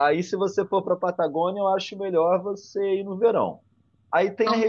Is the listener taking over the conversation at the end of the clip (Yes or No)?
No